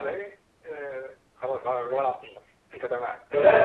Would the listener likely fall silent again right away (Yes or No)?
No